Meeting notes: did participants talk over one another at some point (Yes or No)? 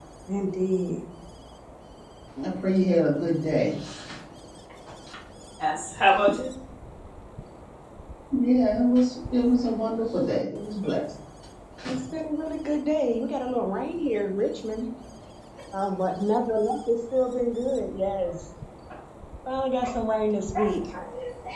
No